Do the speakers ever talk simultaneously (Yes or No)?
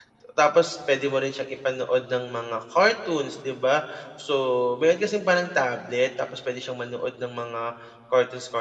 No